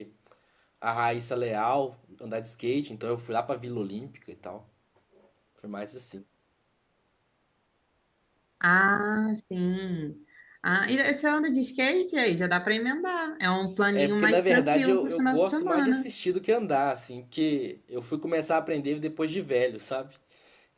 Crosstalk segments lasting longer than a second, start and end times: 13.9-16.0

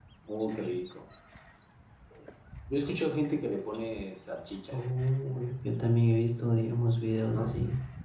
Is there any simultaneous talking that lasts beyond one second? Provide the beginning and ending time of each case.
none

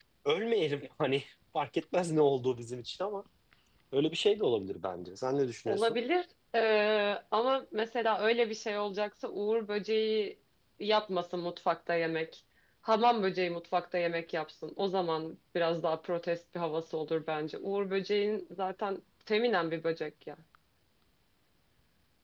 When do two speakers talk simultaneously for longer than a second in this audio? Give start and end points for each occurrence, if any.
none

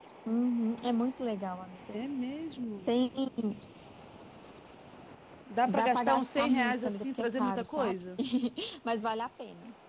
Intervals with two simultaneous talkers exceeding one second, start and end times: 5.6-8.0

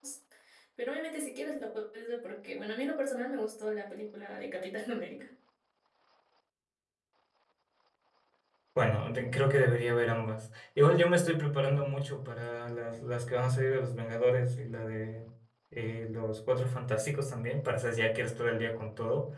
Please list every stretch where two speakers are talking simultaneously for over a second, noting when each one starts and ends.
none

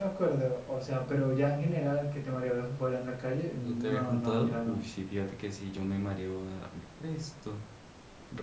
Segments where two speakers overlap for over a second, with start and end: 3.6-4.8

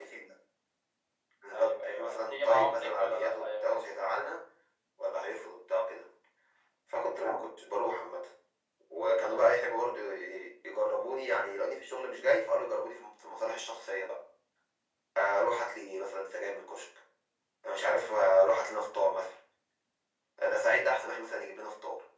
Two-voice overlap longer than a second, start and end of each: 1.5-4.0

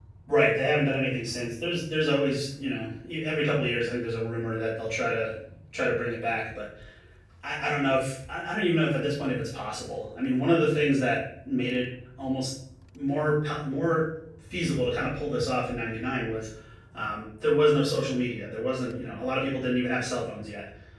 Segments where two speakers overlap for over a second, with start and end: none

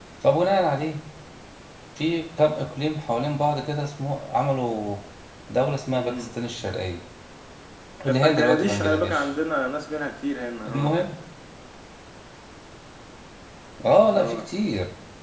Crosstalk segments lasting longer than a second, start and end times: 8.1-9.3

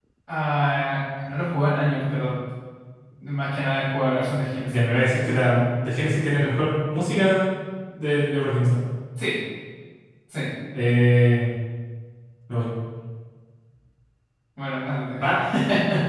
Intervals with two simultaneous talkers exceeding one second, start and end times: none

